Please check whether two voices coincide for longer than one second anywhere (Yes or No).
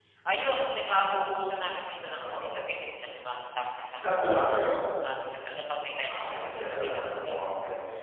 Yes